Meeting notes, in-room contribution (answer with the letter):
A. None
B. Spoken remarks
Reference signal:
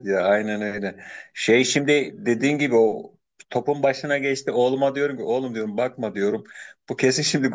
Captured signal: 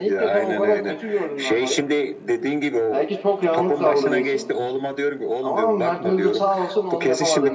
B